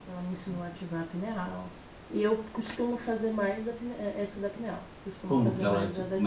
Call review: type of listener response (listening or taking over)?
taking over